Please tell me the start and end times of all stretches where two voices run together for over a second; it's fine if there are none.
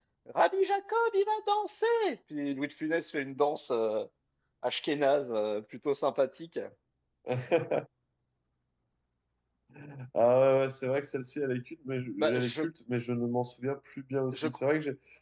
none

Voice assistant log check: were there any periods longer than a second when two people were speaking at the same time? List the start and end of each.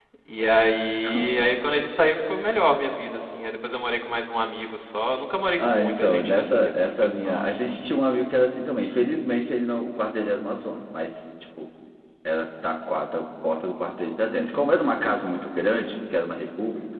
5.6-7.8

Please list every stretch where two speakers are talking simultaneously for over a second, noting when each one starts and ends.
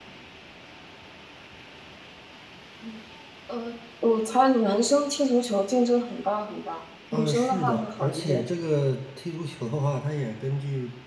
7.1-8.4

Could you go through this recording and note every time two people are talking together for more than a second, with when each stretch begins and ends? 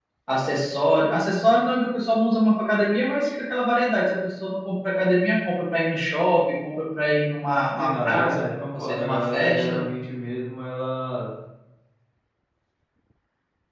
7.8-9.8

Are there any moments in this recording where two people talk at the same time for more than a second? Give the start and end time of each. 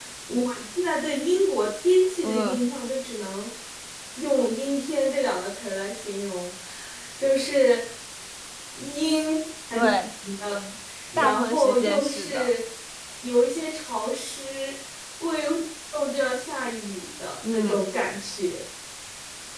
11.2-12.6

